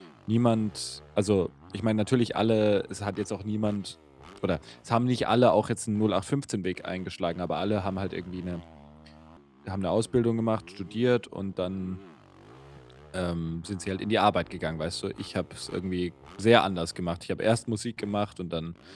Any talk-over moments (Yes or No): No